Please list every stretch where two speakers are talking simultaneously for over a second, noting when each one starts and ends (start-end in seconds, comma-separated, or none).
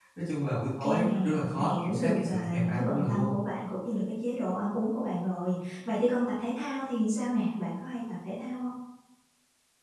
0.8-3.3